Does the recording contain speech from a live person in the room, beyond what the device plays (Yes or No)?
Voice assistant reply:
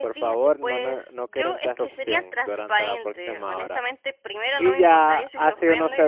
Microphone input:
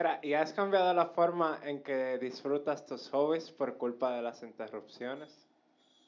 Yes